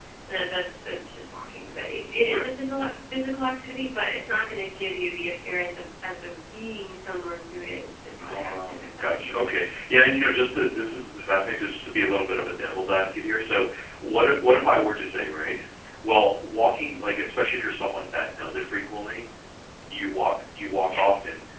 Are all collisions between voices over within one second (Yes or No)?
No